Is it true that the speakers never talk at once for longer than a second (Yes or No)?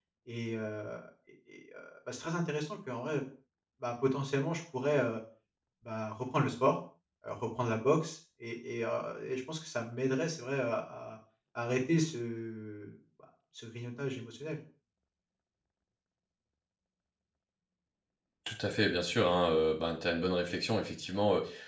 Yes